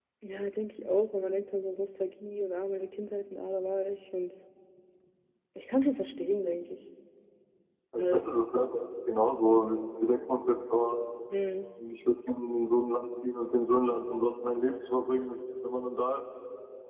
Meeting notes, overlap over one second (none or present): none